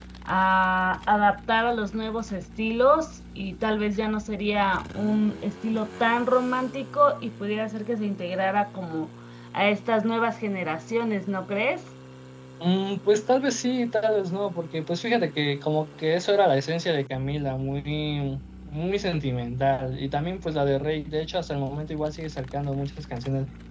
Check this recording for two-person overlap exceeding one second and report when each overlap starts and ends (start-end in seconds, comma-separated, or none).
none